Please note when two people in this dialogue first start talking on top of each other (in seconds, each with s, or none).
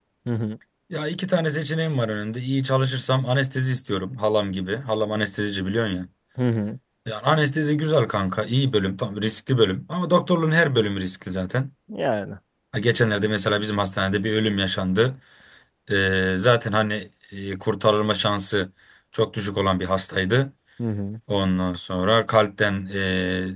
none